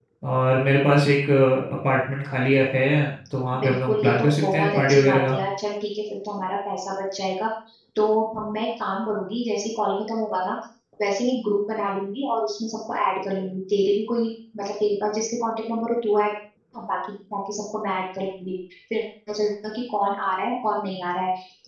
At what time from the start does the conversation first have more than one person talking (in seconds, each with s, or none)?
3.5 s